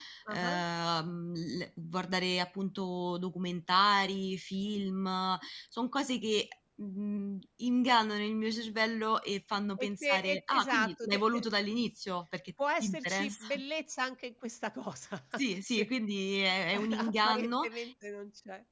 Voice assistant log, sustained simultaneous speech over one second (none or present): present